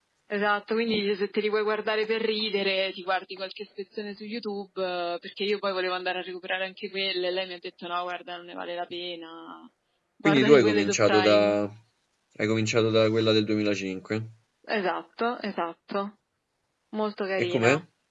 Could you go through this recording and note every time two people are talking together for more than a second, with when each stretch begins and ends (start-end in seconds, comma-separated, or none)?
10.2-11.6